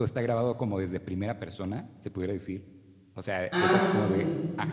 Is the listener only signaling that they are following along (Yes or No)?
Yes